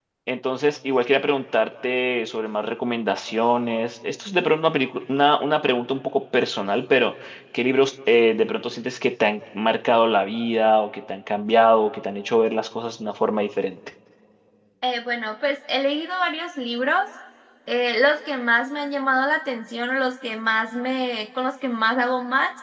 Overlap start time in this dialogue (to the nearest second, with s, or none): none